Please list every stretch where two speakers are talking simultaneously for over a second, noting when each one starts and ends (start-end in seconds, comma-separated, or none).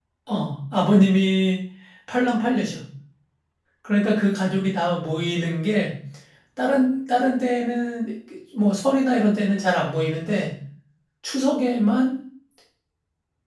none